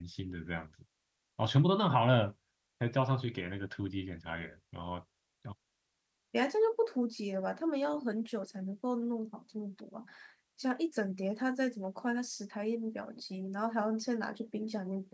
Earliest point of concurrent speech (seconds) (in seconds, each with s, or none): none